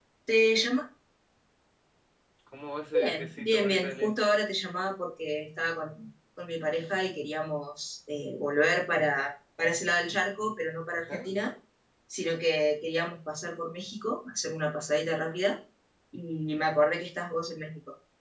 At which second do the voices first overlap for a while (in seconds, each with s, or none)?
2.9 s